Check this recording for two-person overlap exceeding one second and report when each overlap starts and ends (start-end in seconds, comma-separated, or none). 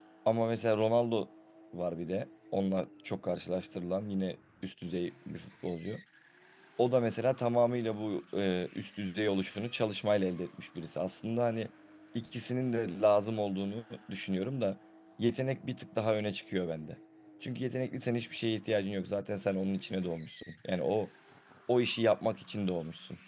none